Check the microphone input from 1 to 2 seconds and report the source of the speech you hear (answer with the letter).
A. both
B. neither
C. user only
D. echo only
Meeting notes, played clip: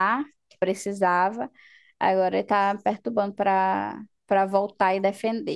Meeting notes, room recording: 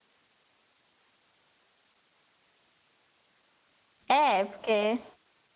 B